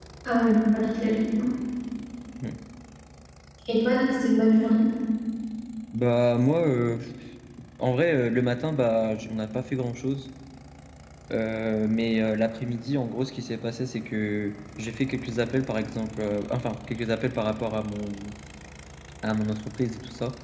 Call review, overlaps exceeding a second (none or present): none